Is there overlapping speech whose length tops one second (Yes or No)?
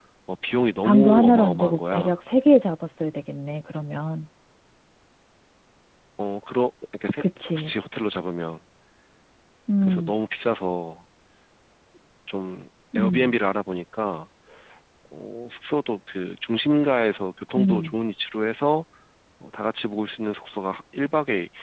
Yes